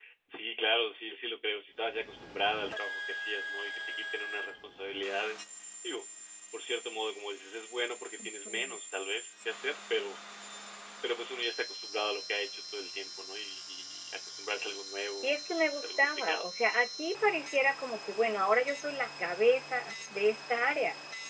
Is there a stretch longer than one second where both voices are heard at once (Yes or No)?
Yes